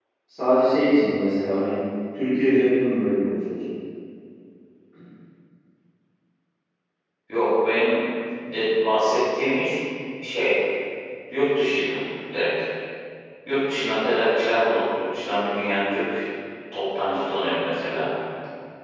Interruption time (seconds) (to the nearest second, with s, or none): none